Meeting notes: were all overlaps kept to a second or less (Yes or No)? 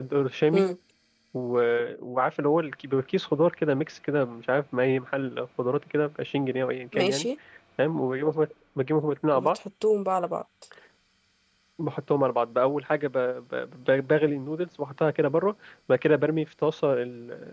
Yes